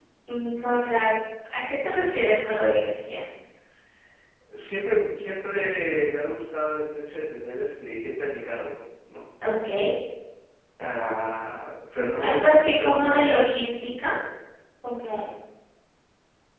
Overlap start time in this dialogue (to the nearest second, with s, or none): 12 s